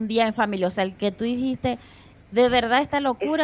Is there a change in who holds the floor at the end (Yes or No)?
Yes